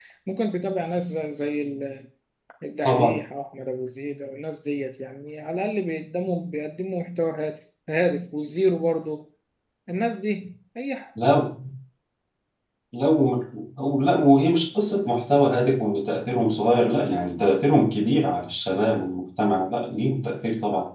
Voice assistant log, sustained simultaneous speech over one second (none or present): none